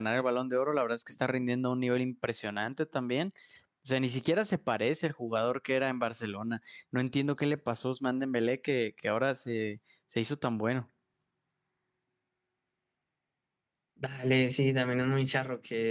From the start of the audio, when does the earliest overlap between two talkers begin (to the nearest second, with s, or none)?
none